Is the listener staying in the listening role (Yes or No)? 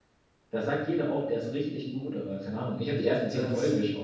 Yes